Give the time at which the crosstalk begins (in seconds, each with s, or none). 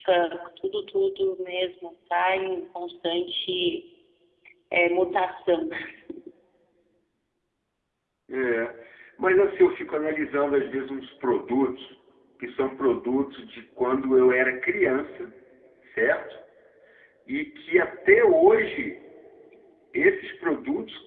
none